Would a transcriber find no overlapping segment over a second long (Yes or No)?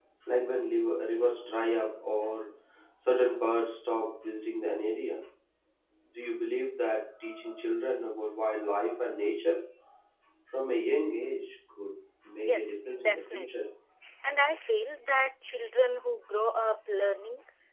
No